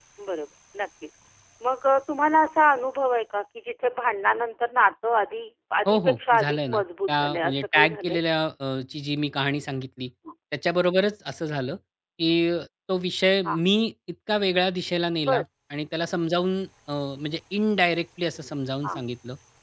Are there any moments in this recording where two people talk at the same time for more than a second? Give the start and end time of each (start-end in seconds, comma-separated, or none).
5.9-8.2